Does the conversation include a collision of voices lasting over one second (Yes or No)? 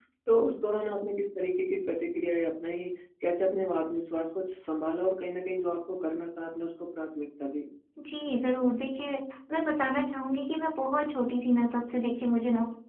No